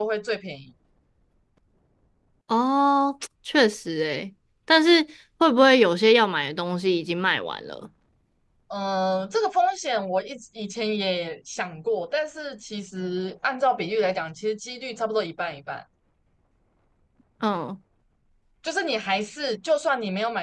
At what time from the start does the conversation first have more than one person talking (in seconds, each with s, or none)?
none